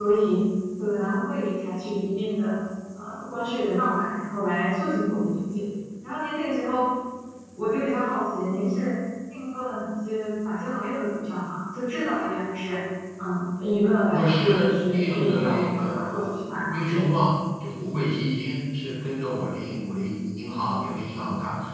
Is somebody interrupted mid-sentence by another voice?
Yes, from 14.1 s

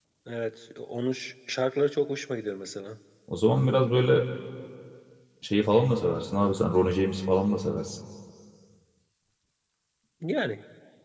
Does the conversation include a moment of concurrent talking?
No

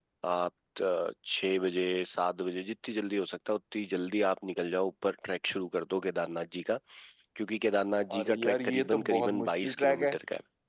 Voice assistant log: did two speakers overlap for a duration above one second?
Yes, from 8.1 s

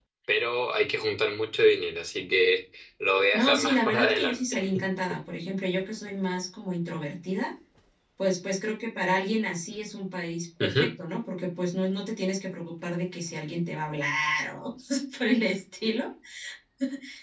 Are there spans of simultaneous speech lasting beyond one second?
Yes, from 3.3 s

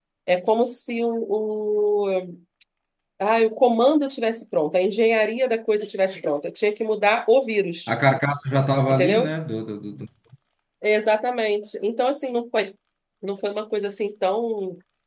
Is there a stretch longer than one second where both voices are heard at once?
No

